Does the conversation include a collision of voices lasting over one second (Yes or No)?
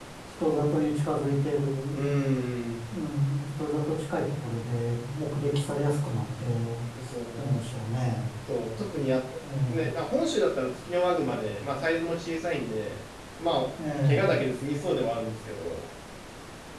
No